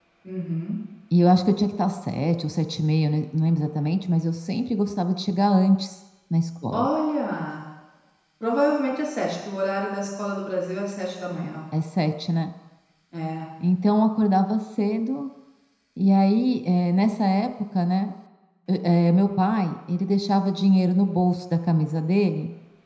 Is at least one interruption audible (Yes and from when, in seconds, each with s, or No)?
No